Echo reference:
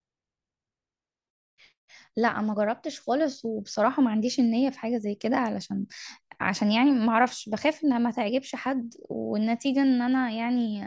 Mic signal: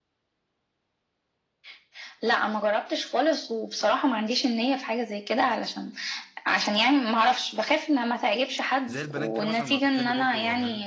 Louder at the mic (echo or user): echo